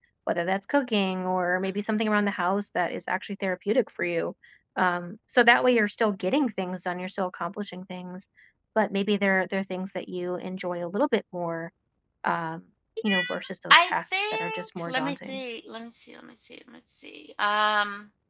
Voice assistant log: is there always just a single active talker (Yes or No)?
No